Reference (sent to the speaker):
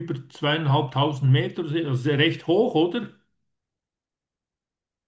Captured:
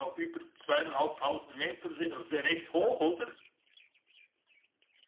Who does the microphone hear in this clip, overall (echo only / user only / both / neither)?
echo only